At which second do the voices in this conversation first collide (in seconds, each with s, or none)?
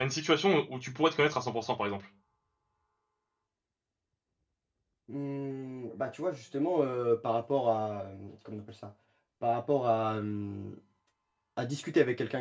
none